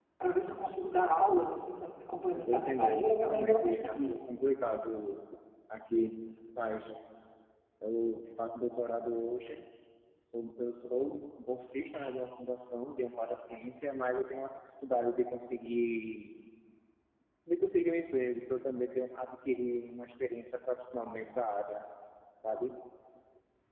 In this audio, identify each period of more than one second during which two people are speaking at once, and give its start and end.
2.3-4.2

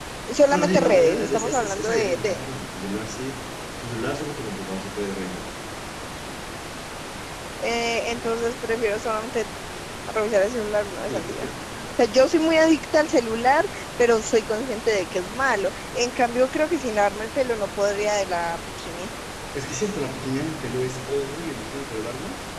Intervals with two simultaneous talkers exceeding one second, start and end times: 0.5-2.5

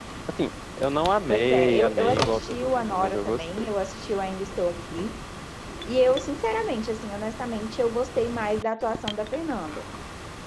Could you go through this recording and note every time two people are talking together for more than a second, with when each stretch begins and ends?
1.3-3.7

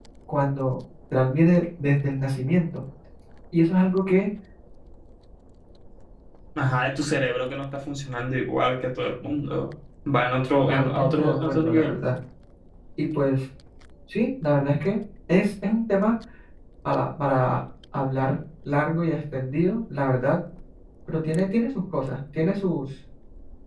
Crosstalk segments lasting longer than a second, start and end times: 10.5-12.0

